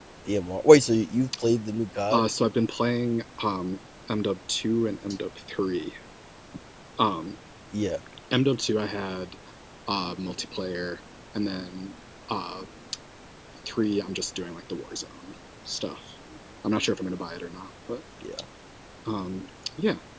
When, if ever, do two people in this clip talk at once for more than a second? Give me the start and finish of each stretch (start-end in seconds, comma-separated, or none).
none